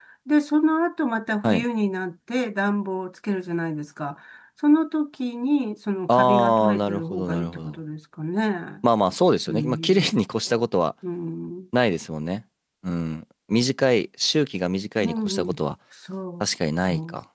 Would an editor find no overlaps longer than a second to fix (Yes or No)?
No